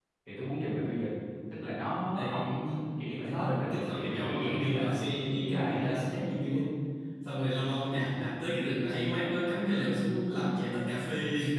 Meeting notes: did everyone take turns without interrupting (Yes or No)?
No